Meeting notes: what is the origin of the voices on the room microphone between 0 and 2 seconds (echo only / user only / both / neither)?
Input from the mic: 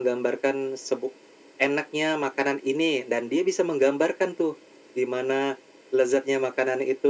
echo only